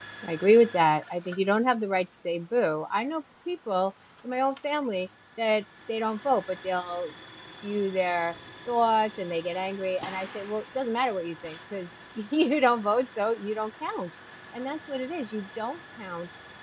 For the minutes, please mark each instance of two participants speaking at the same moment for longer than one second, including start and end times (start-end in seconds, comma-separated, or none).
none